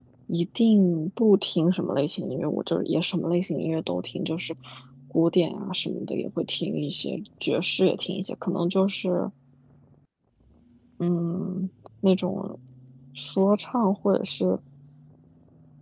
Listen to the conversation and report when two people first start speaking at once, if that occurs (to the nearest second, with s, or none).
none